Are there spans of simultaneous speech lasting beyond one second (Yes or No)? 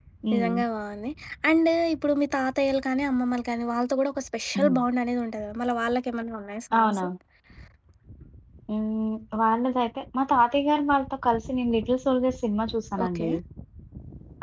No